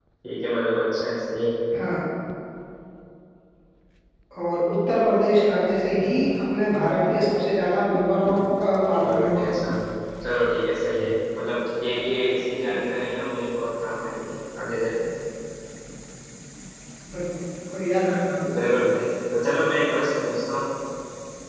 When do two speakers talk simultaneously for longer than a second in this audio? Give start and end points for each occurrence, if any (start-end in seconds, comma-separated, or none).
none